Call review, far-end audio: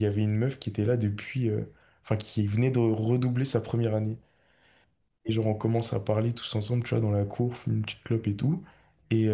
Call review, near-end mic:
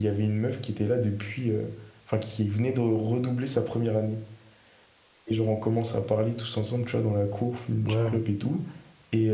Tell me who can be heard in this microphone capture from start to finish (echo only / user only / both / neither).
both